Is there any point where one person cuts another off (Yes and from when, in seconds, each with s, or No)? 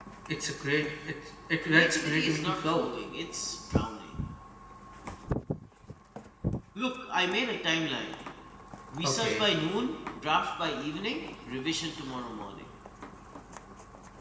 Yes, from 1.6 s